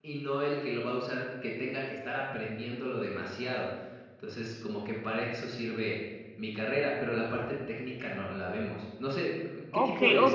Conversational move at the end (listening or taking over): taking over